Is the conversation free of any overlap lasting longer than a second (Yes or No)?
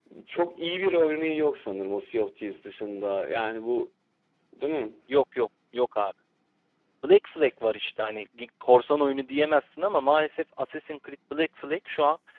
Yes